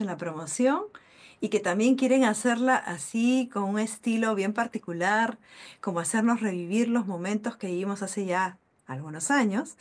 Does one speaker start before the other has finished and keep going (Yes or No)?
No